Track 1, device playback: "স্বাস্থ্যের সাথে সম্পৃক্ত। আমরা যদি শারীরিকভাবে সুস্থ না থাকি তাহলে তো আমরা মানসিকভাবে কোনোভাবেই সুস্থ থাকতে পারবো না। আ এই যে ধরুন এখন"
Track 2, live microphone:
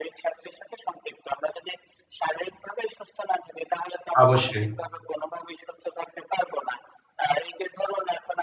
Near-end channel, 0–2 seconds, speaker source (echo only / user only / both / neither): echo only